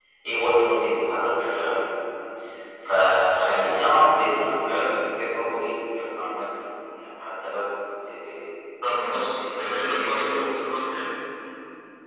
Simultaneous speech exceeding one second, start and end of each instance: 8.8-10.5

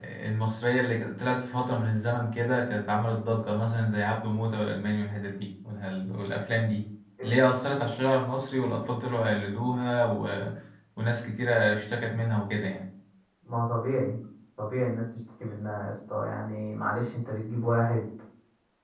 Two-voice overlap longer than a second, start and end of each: none

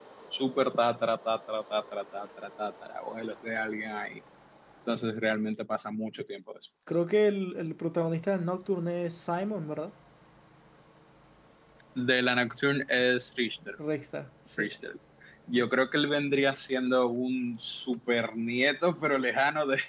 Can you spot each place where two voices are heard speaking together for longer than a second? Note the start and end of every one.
none

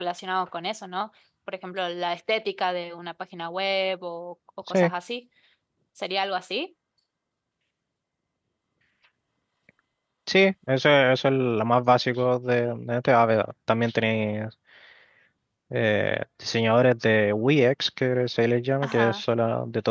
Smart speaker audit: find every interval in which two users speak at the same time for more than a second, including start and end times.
none

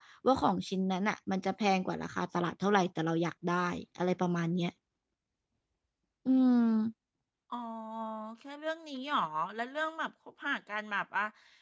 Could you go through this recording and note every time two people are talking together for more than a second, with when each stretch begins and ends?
none

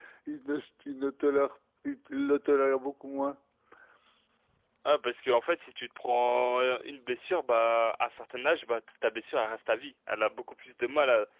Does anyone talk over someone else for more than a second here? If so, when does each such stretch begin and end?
none

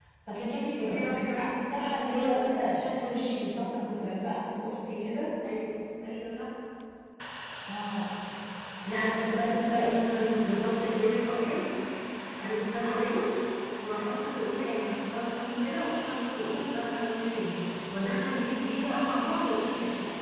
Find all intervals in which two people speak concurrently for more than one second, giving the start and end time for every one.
0.8-2.7

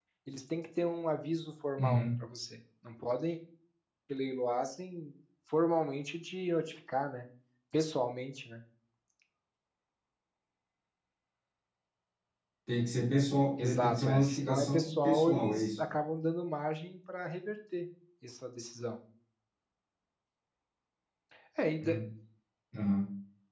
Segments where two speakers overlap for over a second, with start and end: 13.6-15.8

